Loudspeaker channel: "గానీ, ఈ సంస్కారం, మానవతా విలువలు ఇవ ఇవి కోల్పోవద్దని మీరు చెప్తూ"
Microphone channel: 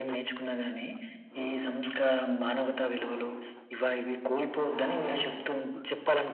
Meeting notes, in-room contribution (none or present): none